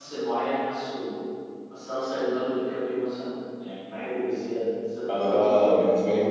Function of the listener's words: taking over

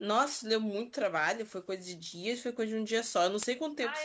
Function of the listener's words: taking over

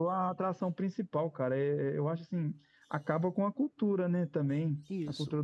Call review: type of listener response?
listening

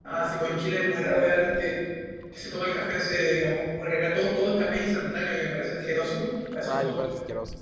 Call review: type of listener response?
taking over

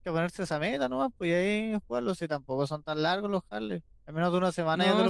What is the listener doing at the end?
taking over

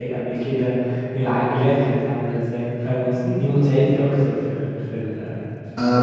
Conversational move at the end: taking over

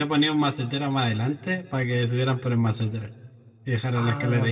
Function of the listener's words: taking over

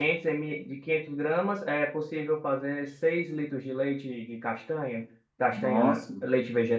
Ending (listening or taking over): listening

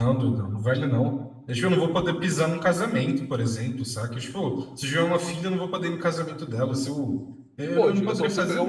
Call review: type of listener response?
taking over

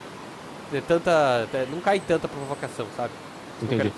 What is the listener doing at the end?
taking over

